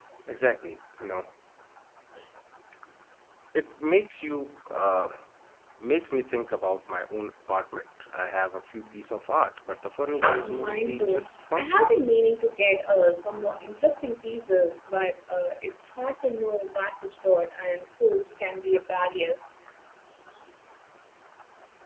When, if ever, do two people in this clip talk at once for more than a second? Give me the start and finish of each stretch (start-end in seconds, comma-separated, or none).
10.4-12.0